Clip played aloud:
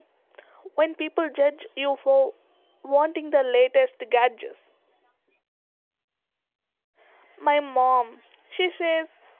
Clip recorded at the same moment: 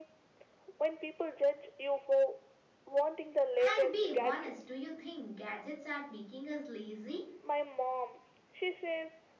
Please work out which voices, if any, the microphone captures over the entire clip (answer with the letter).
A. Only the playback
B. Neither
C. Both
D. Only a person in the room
C